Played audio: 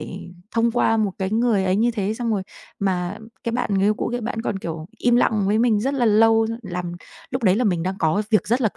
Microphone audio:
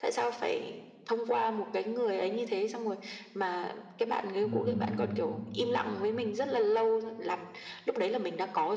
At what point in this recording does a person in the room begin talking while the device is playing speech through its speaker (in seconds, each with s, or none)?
4.4 s